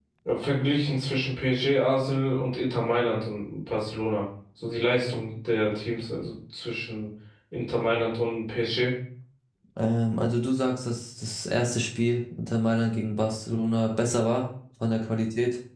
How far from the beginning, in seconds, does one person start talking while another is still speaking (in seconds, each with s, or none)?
none